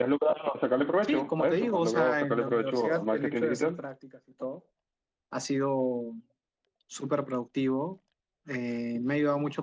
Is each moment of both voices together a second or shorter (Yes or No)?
No